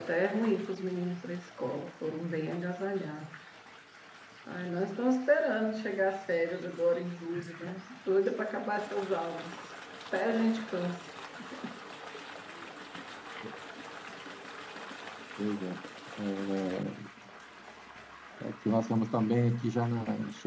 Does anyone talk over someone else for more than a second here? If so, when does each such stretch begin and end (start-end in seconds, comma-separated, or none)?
none